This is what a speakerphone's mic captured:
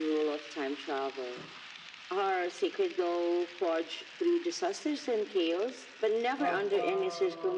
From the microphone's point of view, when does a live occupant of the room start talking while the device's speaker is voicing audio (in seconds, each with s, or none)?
6.4 s